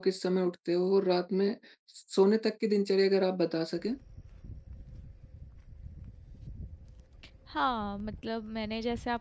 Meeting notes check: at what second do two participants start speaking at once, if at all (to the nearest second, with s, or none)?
none